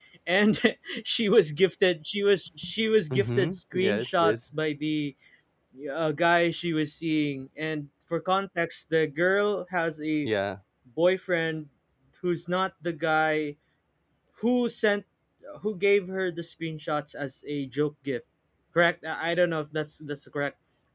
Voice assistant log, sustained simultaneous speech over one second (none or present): present